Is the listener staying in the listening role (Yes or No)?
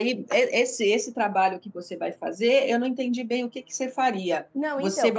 Yes